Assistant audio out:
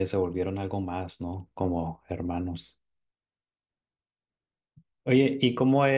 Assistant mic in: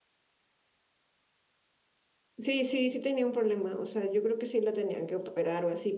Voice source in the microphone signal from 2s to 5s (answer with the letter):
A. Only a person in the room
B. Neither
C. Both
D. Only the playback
A